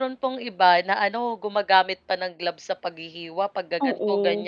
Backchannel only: Yes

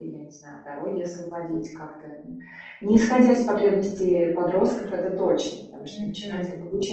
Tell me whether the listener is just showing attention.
No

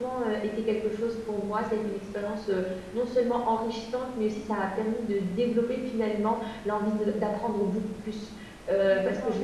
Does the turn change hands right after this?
Yes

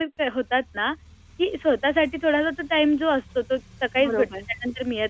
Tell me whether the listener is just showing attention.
Yes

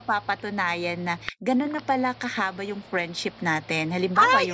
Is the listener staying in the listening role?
Yes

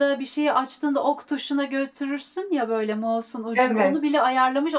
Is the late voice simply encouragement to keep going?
Yes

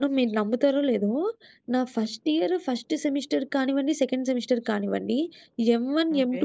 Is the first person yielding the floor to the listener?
No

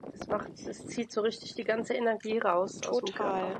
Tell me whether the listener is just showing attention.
No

